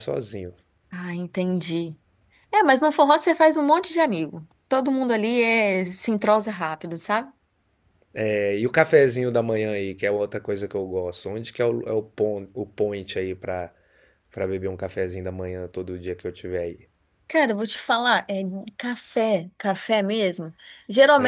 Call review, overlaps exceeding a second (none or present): none